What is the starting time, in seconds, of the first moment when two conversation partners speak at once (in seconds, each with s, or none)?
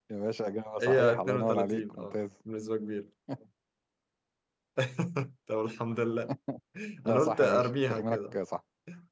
0.8 s